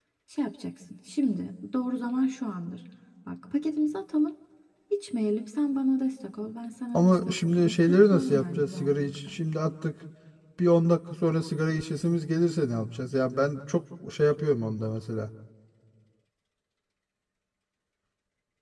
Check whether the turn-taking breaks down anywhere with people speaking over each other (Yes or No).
Yes